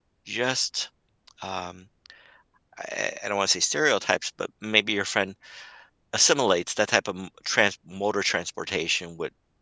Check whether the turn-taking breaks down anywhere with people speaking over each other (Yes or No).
No